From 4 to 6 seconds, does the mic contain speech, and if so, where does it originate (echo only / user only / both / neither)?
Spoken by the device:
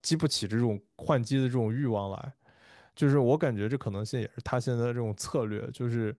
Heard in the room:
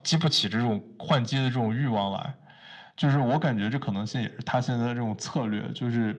echo only